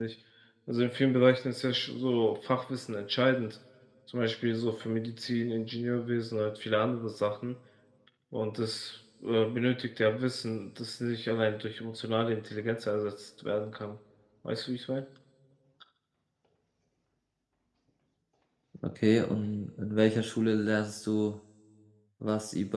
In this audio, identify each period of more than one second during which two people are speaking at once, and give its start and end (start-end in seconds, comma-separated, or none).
none